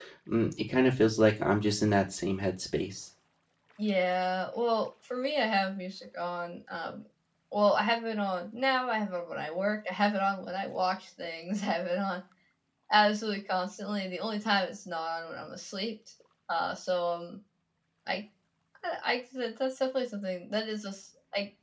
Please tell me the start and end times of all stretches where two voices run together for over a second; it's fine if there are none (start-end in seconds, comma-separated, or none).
none